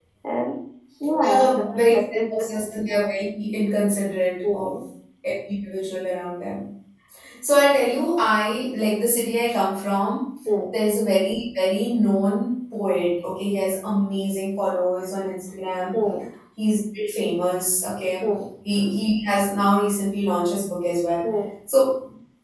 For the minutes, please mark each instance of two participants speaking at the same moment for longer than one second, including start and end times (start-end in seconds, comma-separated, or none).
1.2-2.5